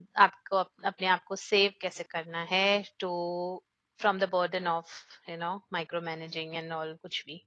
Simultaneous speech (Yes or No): No